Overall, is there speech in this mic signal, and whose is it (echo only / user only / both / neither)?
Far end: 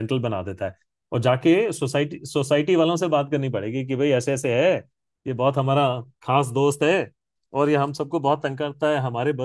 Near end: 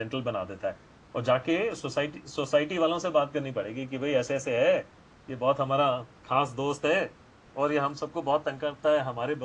echo only